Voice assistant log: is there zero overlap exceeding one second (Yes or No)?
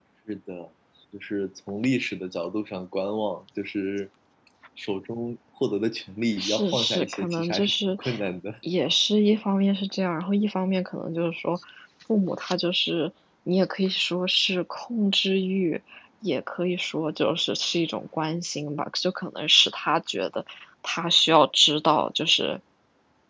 No